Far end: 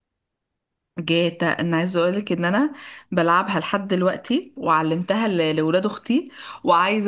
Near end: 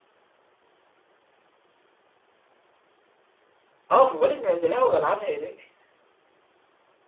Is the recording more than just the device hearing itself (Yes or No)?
Yes